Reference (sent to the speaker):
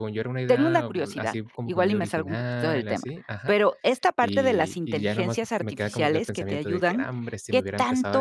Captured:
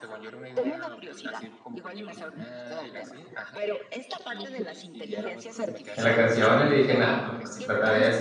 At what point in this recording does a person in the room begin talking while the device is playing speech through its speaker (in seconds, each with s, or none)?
6.0 s